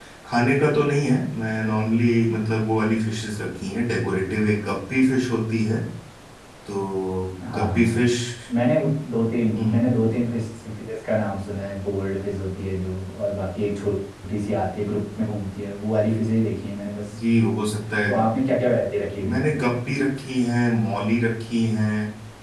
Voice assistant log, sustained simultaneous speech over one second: none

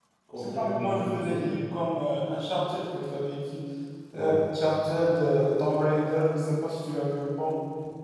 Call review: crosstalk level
present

